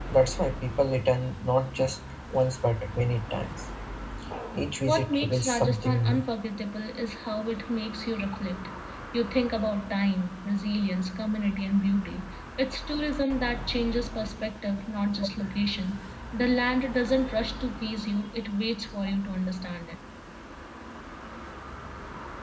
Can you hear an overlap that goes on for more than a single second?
Yes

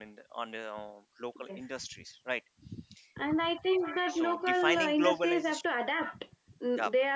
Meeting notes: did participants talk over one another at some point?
Yes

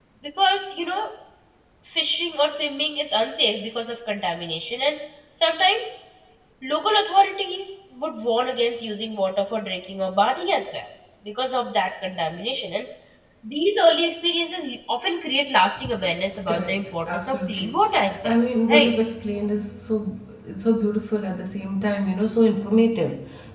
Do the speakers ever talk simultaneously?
Yes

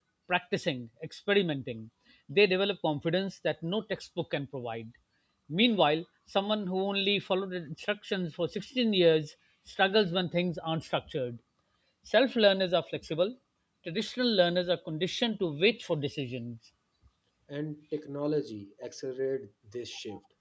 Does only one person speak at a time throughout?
Yes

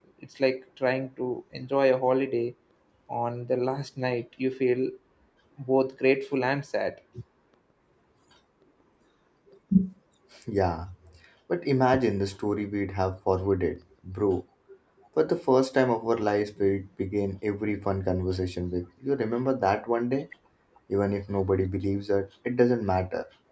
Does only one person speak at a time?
Yes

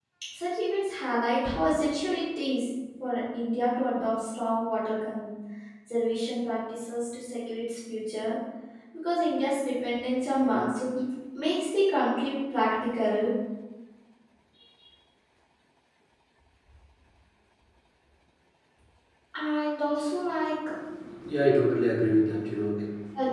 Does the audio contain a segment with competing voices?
No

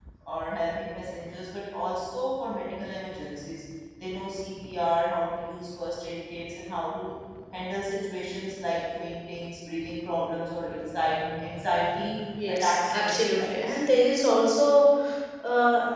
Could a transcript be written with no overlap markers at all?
No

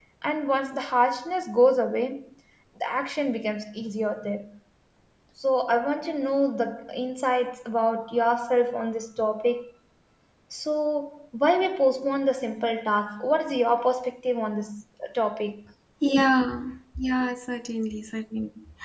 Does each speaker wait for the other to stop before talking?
Yes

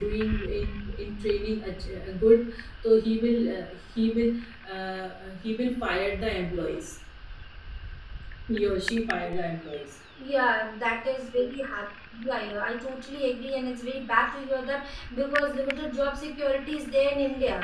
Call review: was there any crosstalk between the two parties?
No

